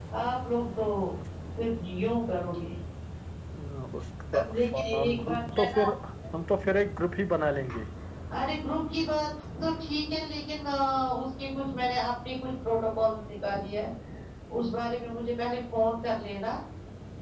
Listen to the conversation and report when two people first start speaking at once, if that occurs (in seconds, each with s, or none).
4.4 s